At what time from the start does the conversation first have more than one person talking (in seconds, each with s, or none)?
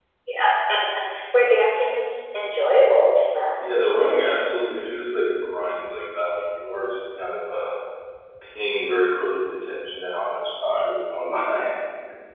none